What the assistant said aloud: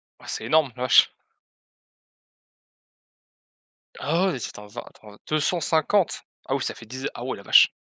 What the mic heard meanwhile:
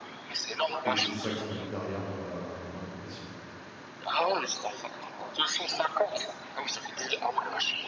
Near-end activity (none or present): present